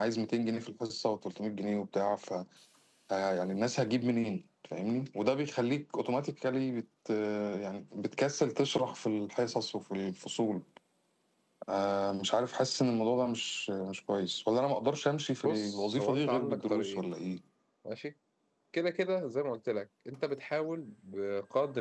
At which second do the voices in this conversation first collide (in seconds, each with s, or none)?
15.4 s